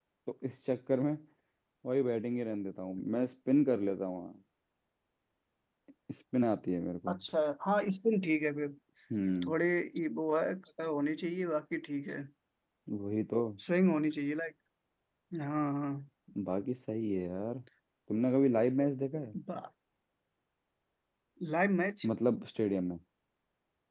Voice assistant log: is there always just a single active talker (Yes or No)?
Yes